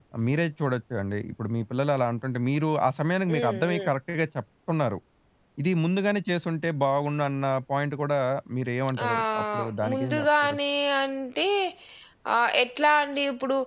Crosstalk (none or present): present